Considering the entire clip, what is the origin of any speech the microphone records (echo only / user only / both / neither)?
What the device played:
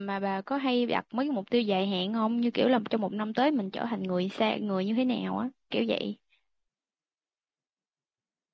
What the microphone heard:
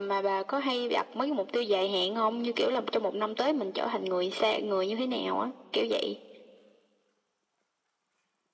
echo only